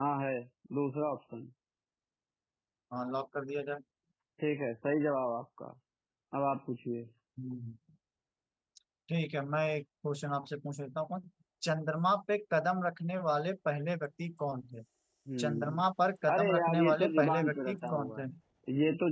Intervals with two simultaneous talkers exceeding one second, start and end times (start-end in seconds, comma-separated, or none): 16.3-18.2